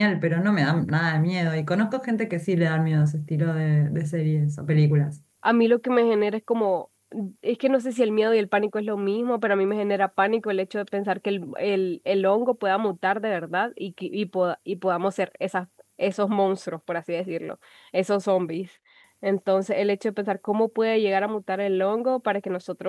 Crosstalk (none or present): none